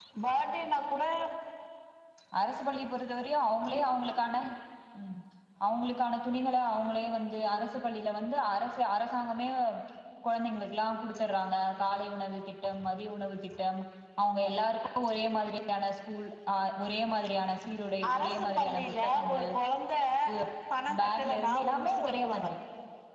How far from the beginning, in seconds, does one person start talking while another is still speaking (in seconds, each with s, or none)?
18.1 s